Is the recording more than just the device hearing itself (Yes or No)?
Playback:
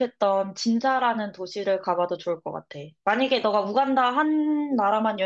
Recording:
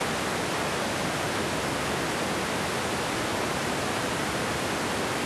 No